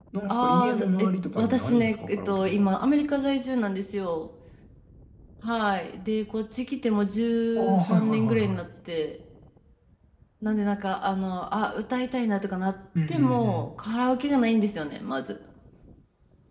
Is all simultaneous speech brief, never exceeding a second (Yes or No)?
No